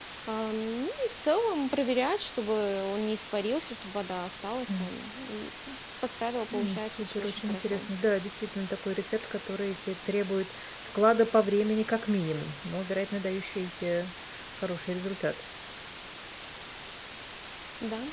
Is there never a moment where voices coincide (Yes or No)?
No